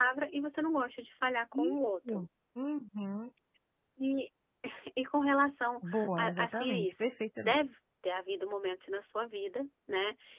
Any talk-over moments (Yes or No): Yes